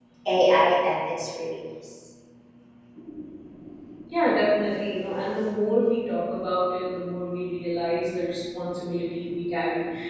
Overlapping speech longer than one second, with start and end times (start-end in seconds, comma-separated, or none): none